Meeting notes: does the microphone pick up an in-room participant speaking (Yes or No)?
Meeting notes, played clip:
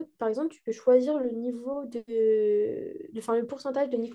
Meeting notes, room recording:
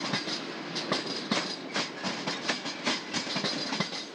No